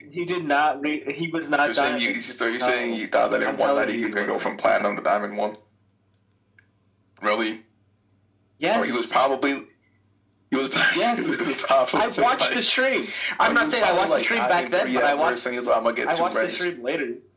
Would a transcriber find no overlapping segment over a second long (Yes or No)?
No